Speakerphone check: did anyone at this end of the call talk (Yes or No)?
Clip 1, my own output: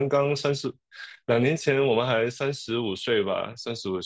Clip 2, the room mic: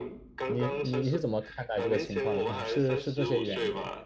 Yes